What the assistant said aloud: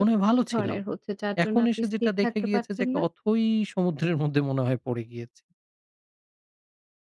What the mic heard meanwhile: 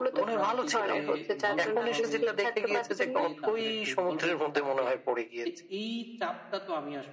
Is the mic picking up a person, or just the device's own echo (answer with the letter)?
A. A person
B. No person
A